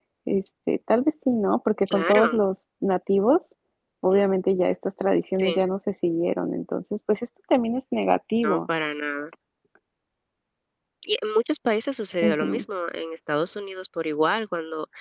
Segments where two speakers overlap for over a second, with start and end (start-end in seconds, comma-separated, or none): none